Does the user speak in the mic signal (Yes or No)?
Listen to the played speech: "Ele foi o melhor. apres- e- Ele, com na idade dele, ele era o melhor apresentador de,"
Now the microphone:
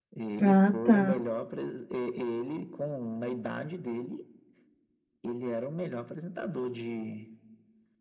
Yes